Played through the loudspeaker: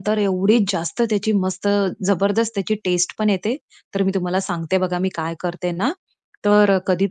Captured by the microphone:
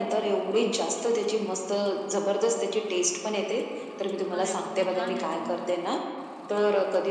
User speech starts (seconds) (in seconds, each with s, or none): 4.4 s